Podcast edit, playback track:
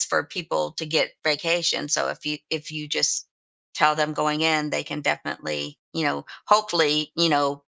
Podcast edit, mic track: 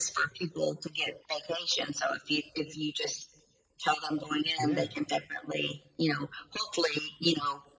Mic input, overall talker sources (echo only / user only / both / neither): both